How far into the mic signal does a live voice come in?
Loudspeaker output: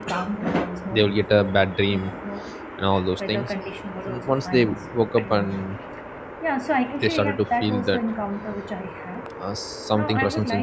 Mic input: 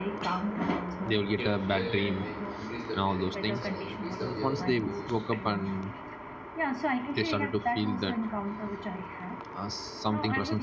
1 s

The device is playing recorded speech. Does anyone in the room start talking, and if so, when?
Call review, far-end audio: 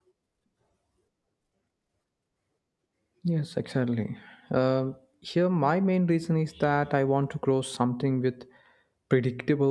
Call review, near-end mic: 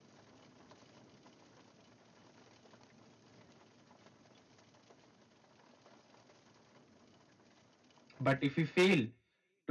8 s

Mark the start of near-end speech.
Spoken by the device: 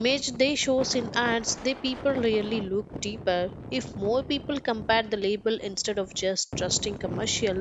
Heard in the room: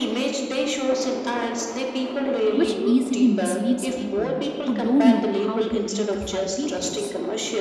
3 s

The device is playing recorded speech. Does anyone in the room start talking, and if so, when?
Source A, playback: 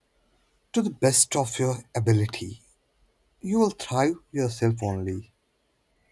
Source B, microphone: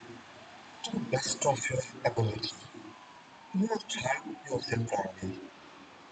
none

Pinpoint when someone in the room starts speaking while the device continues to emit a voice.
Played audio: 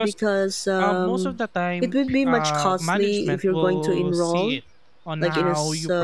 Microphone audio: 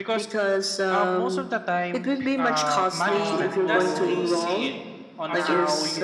3 s

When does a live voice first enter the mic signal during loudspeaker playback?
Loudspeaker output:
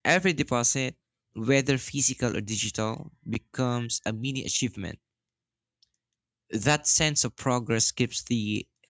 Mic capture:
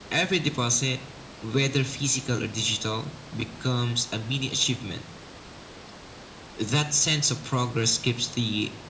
none

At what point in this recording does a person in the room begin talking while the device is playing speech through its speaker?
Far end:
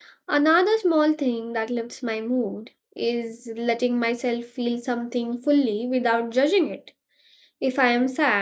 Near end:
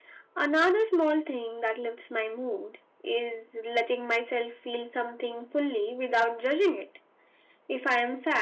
none

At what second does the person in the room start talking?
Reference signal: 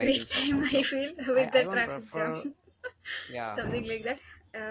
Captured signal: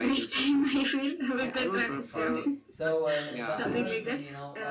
2 s

